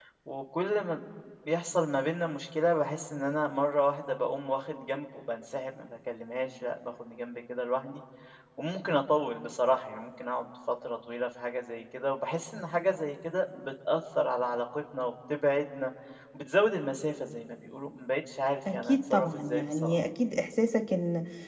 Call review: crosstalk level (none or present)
present